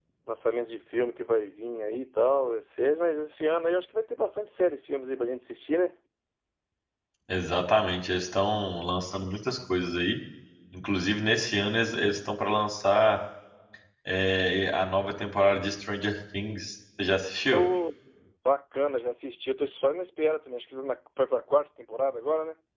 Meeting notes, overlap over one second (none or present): none